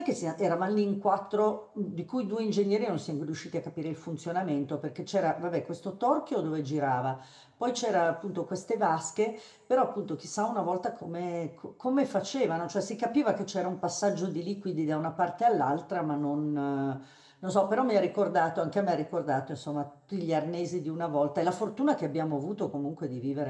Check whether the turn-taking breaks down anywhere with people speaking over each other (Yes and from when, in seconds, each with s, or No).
No